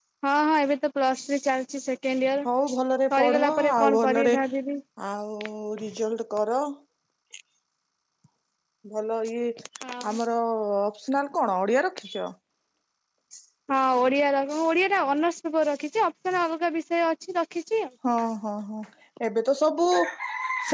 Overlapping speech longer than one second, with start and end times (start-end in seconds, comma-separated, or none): 3.1-4.4